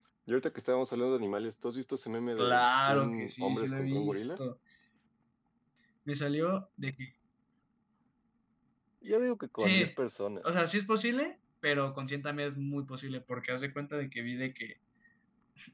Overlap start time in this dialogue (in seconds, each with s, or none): 2.4 s